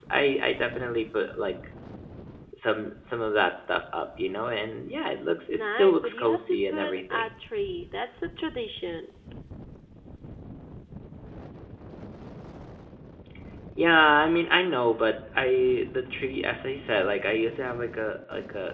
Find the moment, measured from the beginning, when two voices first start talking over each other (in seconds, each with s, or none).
5.5 s